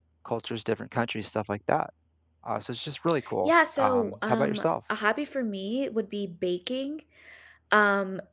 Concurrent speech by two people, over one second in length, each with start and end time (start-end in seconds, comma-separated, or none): 3.5-4.7